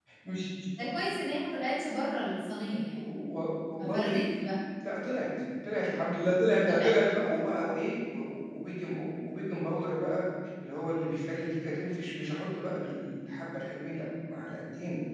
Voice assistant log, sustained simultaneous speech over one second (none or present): none